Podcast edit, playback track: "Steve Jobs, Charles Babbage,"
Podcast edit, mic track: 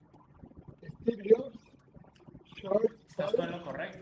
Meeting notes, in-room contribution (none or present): present